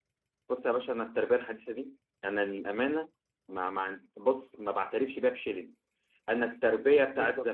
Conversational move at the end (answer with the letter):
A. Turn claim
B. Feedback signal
B